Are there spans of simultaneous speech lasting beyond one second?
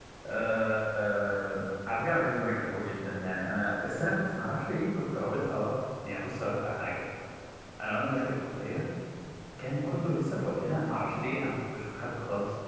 No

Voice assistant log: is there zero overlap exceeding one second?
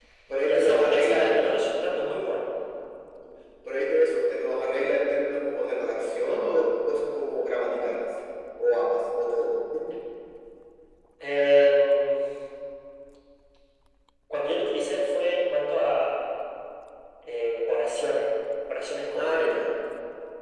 No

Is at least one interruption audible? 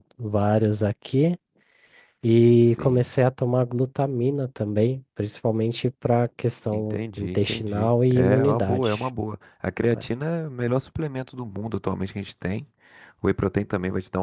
Yes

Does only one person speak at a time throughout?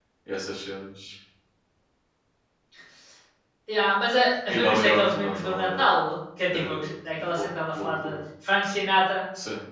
No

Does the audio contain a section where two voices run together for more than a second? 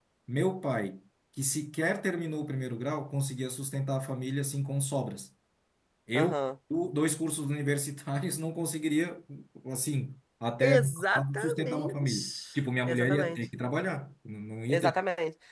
Yes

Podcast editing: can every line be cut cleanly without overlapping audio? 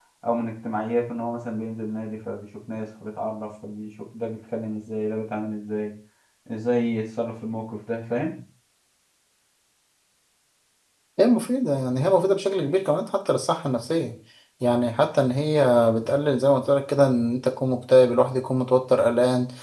Yes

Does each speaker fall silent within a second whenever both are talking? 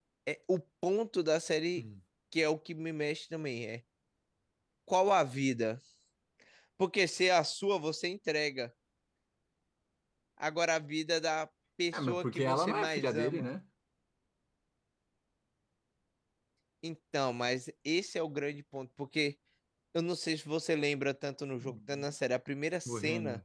No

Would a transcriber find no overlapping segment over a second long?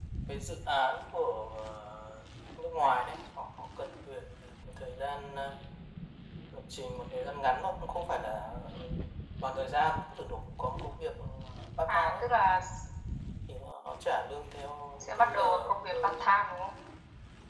No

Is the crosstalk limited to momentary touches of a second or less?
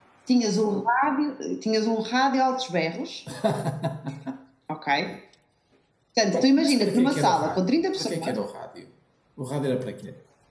No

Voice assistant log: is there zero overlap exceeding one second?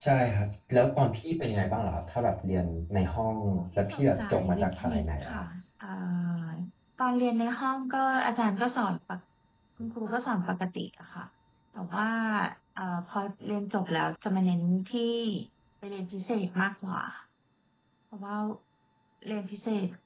No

